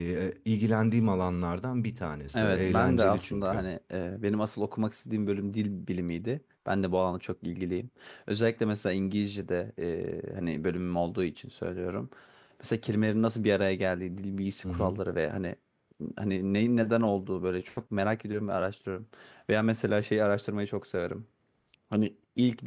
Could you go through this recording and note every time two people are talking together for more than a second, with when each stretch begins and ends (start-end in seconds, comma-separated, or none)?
2.3-3.6